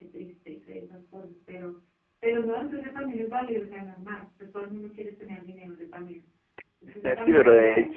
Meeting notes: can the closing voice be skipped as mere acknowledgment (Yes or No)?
No